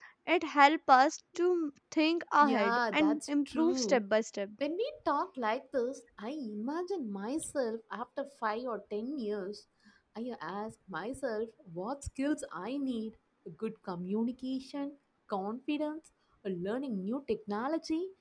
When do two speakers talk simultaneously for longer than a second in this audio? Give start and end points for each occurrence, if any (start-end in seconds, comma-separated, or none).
2.4-4.0